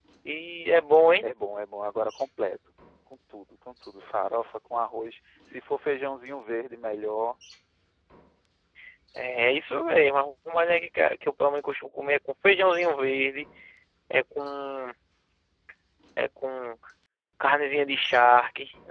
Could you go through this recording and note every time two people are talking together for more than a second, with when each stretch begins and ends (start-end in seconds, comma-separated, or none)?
none